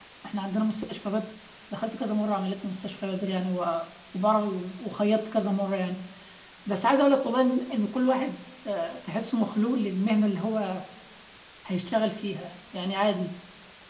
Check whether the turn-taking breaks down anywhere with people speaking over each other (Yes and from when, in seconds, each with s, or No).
No